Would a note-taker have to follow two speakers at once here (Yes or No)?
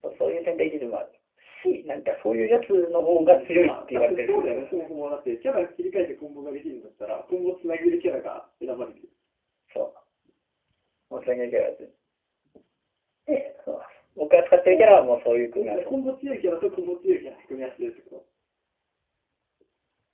Yes